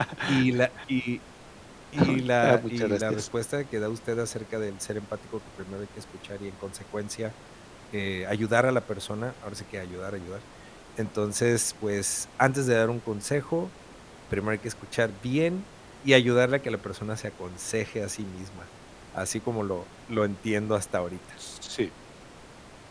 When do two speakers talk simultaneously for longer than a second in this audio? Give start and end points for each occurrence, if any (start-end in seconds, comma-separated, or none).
2.0-3.2